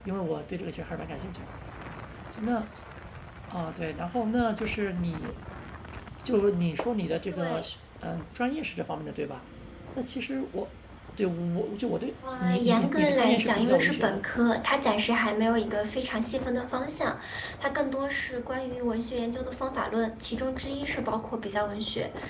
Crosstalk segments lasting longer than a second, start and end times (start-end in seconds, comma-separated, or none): 12.4-14.2